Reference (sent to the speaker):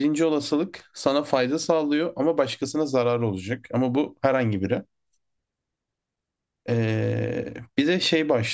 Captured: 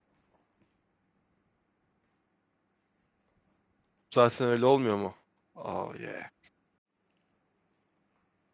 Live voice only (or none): Zaten öyle olmuyor mu? Oh yeah.